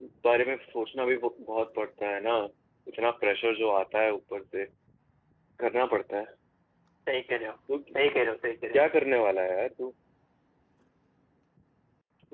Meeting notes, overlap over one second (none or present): none